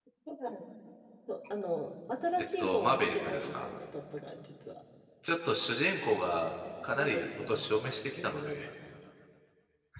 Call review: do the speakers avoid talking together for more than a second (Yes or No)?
No